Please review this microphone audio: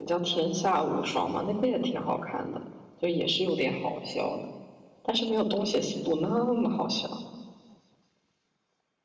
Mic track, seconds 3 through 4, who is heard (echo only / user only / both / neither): user only